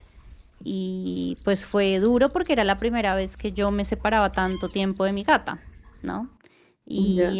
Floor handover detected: No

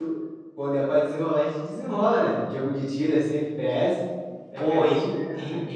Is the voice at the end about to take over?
Yes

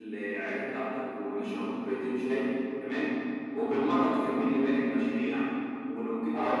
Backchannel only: Yes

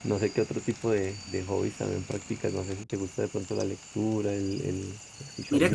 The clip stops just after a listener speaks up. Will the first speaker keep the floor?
No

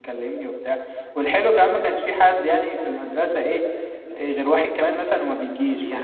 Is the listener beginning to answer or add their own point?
Yes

